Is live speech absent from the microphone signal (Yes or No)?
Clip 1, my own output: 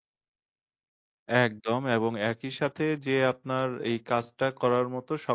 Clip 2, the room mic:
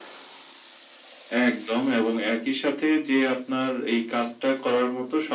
Yes